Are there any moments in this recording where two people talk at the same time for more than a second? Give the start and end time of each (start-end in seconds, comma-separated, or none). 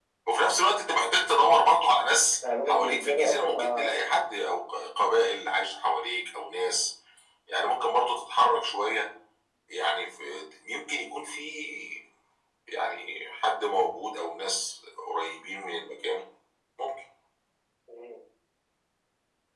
2.7-3.9